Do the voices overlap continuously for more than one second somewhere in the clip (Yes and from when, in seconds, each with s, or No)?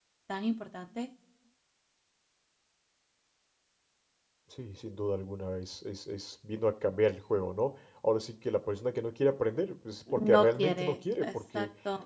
Yes, from 10.1 s